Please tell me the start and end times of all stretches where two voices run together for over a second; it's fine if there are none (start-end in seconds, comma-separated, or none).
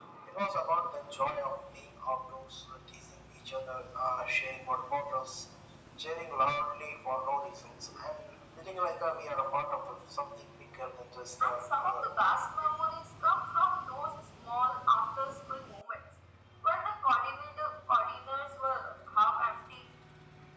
11.4-12.7